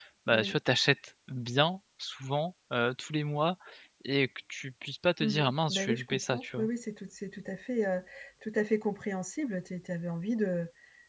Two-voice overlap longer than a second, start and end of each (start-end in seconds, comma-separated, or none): 5.2-6.7